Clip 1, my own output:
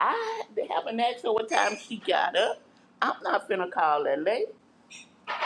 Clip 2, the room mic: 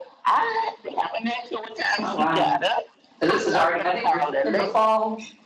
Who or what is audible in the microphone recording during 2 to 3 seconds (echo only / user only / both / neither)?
both